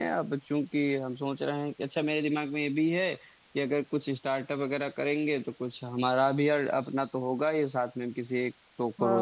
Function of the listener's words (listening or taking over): taking over